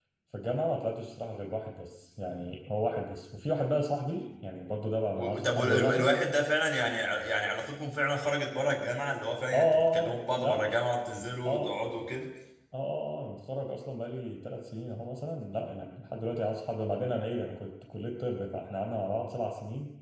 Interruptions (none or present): present